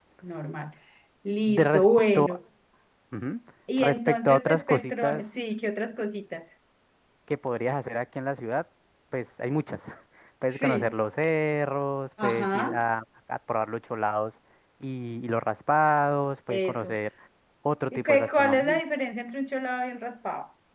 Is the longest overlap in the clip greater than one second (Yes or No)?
Yes